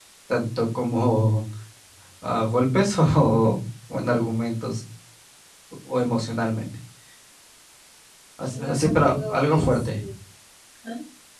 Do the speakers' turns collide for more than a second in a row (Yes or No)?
Yes